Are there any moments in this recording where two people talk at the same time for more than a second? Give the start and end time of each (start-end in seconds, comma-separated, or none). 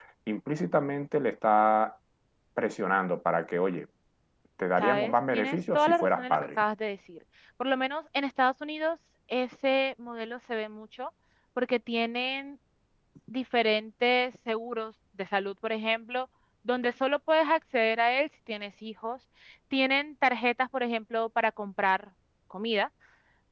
4.8-6.6